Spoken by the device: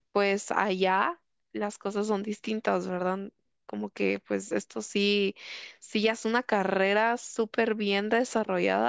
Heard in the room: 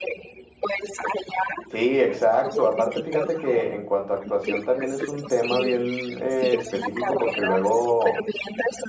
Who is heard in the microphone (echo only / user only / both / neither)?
both